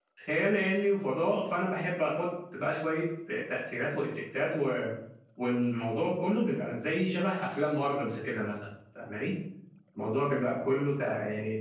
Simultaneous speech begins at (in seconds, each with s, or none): none